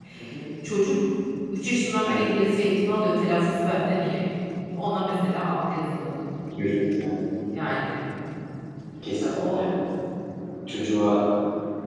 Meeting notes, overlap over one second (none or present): none